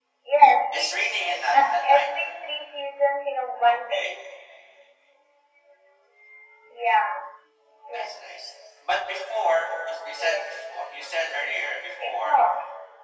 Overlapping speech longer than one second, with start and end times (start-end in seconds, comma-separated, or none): 0.7-2.1